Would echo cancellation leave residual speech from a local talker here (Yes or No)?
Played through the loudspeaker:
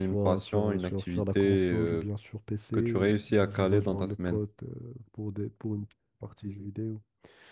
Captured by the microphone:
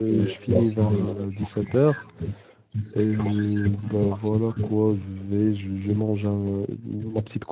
Yes